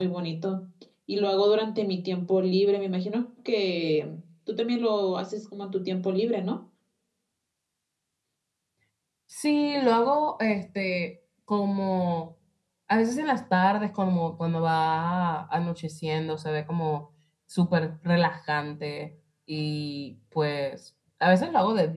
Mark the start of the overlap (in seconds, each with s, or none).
none